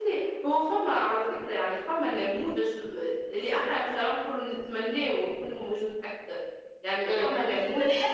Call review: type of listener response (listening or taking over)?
taking over